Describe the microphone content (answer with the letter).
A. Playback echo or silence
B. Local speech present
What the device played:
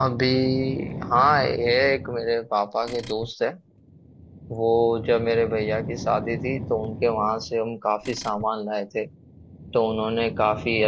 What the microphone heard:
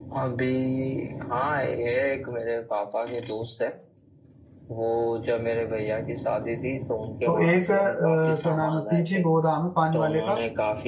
B